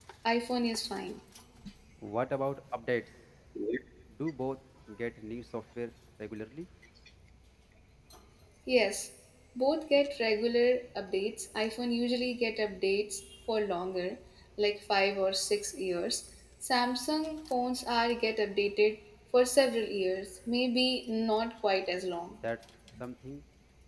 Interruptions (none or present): none